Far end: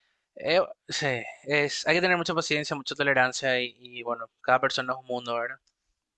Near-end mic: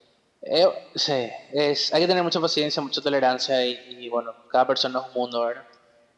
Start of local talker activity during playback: none

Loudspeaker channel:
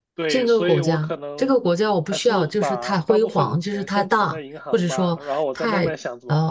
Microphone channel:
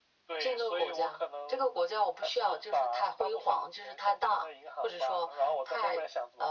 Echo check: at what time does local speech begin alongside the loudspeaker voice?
none

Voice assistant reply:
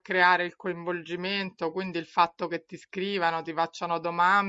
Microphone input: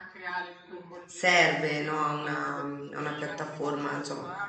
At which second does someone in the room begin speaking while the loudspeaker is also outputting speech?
1 s

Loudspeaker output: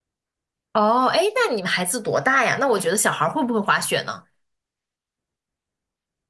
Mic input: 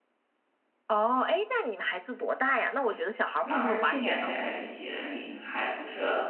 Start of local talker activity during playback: 3 s

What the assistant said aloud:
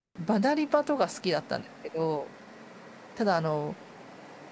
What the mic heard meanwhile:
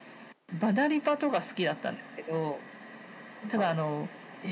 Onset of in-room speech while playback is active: 3 s

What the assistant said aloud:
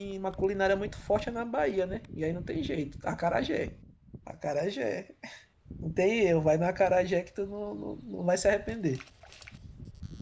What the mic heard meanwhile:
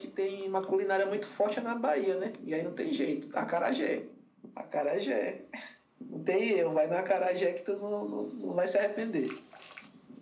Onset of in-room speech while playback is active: none

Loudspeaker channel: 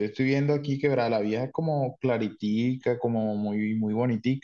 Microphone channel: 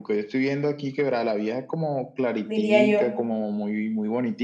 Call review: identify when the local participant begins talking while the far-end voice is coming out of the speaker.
2 s

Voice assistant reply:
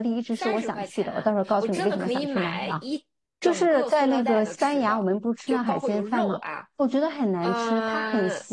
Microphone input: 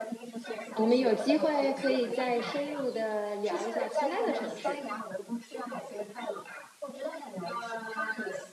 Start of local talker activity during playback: 1 s

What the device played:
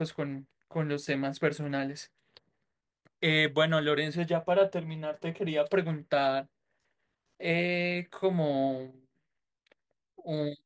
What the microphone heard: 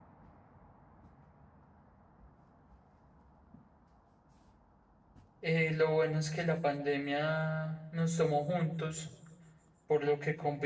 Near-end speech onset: 5 s

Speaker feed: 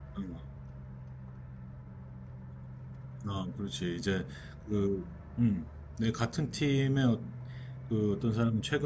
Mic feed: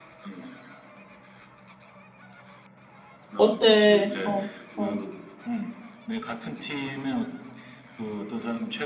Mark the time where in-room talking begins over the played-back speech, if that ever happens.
3 s

